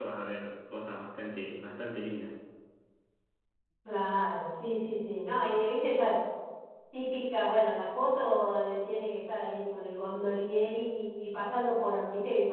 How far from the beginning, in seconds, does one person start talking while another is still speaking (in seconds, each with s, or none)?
none